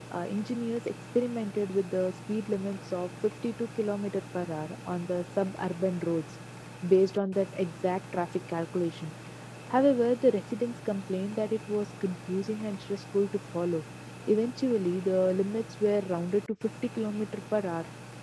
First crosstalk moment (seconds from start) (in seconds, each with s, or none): none